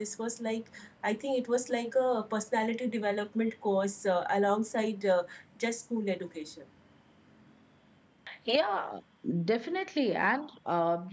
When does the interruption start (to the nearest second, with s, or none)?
none